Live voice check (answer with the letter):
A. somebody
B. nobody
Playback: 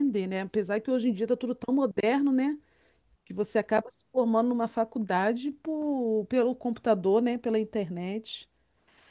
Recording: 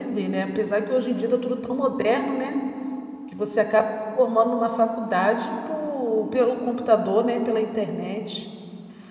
B